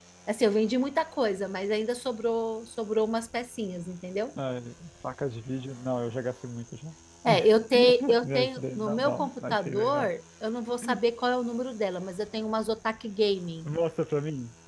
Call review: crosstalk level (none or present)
present